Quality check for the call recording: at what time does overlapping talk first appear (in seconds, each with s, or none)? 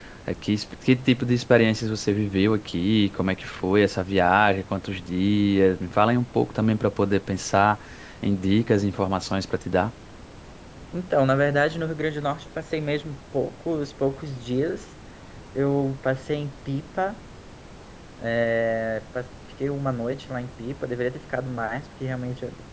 none